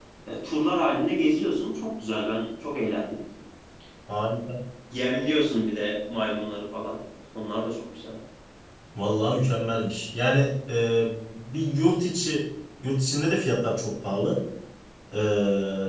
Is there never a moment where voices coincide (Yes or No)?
Yes